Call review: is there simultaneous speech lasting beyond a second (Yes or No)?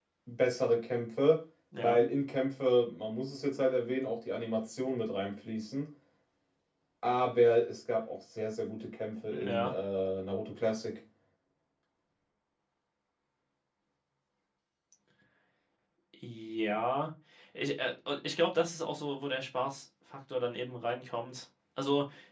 No